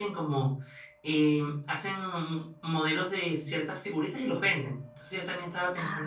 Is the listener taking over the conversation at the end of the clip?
No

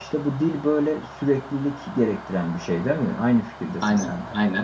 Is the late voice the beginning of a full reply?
Yes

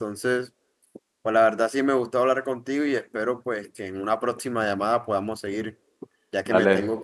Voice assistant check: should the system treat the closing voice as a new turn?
Yes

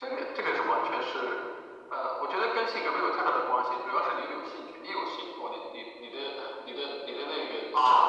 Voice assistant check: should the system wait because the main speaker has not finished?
No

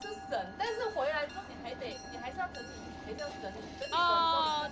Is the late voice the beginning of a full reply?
Yes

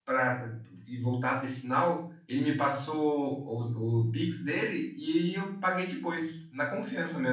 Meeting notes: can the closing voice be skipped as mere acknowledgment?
No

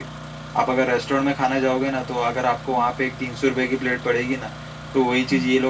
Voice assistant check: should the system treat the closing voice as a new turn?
No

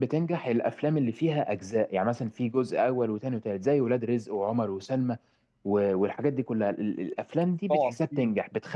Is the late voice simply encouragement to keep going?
Yes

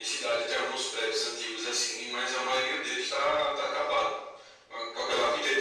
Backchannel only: Yes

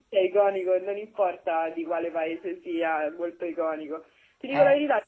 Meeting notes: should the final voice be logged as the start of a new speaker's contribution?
No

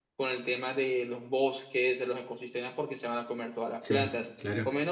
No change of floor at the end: Yes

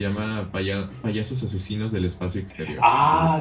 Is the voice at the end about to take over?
Yes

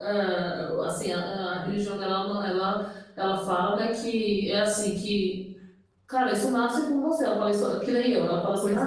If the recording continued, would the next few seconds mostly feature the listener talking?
No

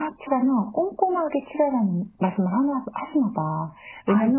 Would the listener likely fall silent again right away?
Yes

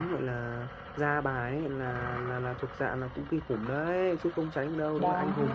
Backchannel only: Yes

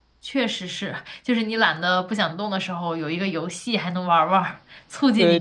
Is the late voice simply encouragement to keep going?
No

